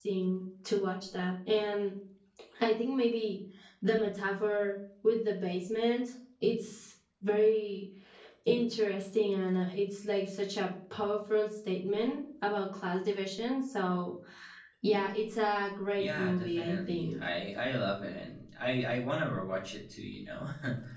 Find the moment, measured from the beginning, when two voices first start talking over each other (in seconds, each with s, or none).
16.0 s